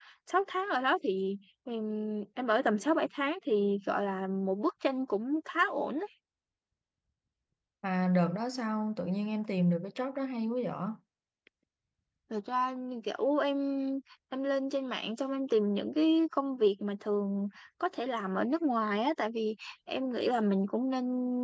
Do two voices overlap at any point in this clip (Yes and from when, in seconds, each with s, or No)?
No